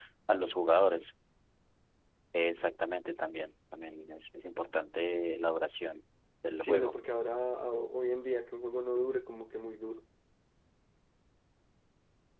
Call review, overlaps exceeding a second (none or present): none